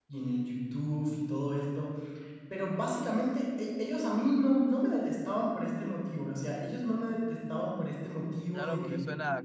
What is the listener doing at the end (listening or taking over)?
taking over